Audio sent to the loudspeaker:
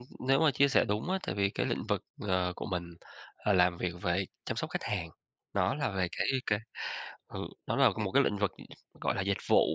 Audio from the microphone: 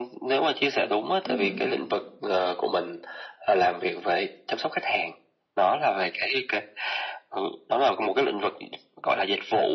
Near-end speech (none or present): present